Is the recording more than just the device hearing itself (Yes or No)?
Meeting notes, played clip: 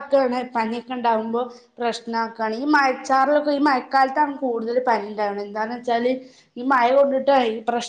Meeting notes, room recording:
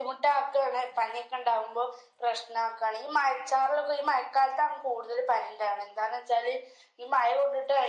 No